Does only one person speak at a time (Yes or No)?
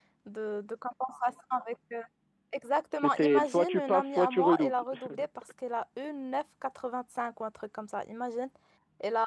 No